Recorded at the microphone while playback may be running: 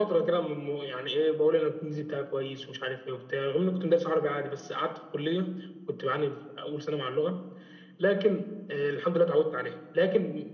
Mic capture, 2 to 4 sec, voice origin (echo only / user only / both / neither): echo only